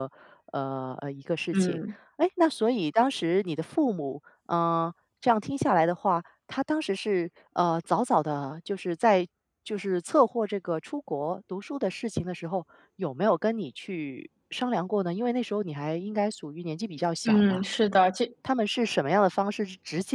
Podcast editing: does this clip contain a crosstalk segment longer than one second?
No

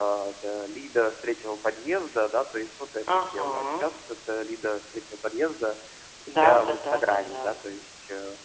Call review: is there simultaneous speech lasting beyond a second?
Yes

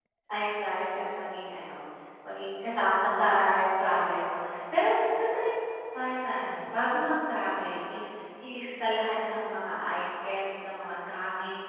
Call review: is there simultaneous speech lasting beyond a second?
No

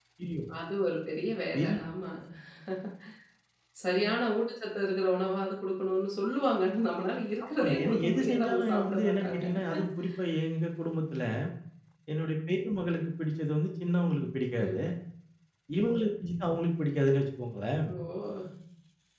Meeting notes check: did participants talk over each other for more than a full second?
Yes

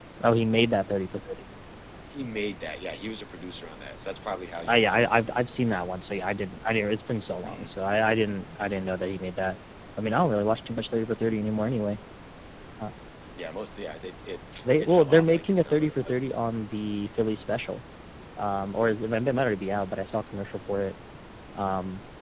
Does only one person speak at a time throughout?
No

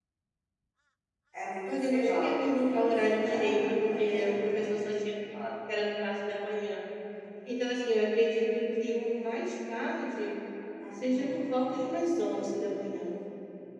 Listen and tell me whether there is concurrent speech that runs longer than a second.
Yes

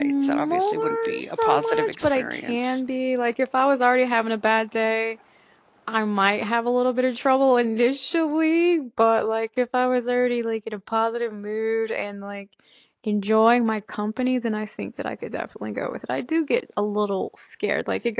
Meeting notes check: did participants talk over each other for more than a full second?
Yes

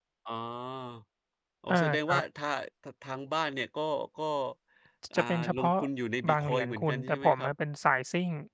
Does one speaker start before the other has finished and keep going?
Yes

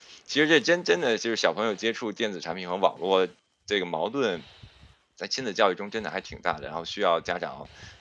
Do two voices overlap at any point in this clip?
No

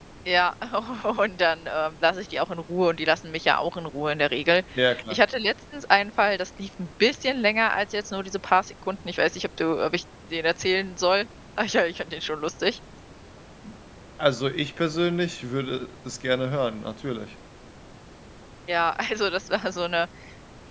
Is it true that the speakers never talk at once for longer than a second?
Yes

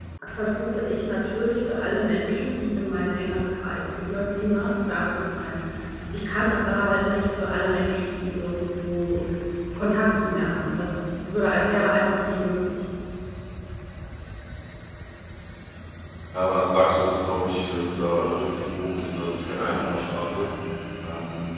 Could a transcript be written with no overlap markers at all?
Yes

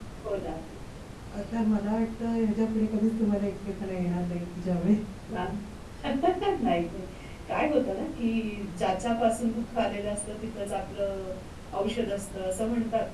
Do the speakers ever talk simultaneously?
No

